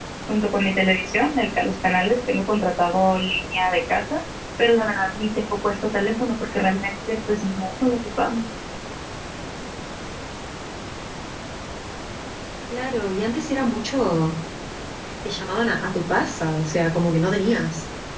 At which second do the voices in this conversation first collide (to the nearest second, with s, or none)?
none